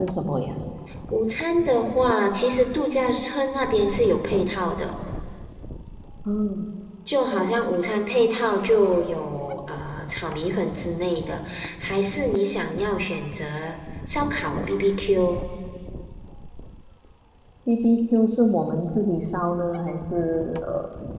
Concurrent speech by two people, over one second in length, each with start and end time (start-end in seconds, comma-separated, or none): none